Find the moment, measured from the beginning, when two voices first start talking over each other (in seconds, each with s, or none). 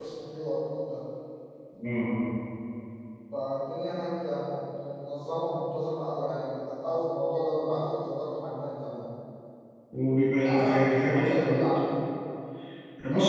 10.4 s